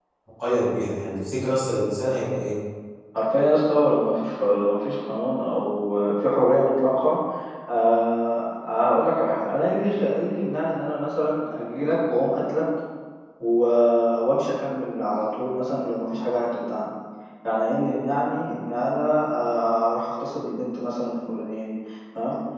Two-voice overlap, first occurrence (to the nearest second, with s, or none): none